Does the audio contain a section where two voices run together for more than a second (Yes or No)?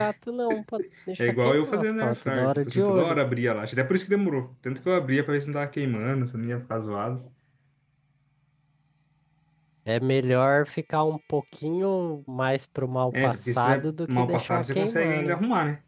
Yes